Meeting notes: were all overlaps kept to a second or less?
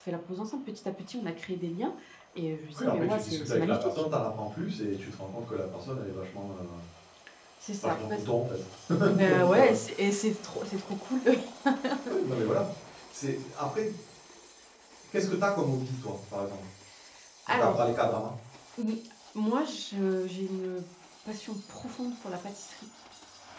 No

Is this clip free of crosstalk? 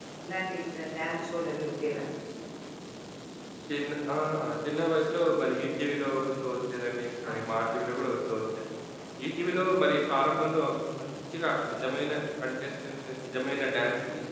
Yes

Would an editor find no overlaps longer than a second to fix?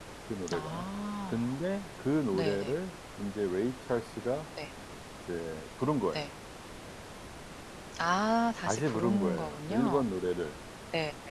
No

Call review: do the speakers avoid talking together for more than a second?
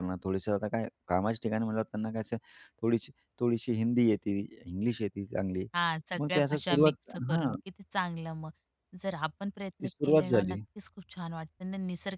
No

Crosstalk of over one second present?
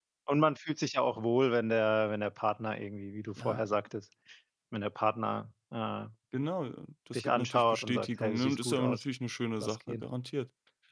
Yes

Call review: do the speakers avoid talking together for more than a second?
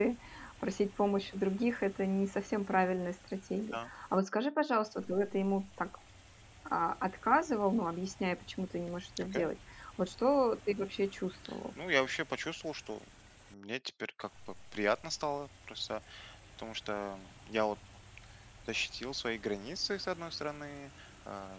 Yes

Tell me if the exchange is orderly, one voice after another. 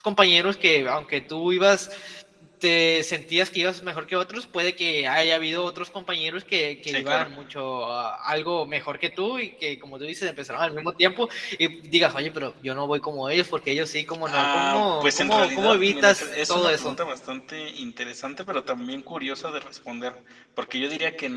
No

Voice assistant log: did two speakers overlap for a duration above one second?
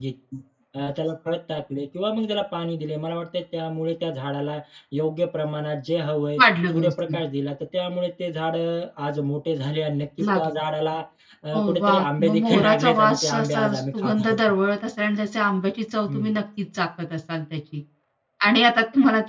Yes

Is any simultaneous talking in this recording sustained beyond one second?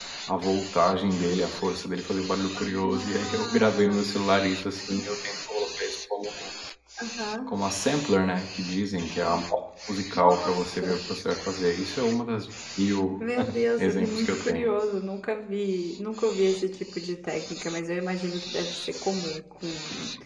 Yes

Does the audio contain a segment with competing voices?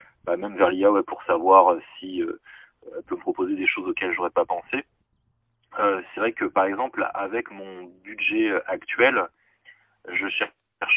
No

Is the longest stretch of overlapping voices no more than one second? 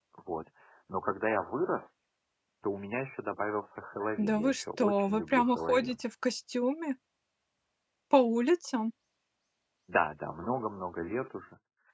No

